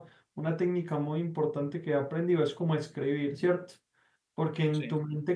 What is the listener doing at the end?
listening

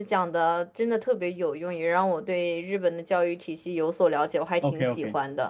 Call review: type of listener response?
taking over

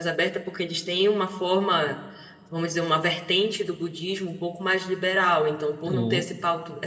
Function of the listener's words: listening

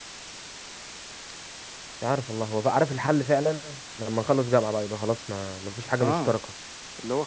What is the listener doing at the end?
taking over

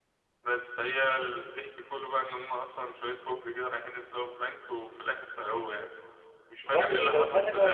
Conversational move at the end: taking over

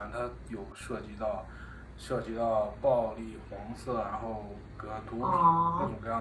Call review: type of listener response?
taking over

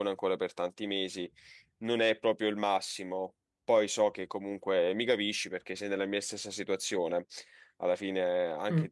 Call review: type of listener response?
listening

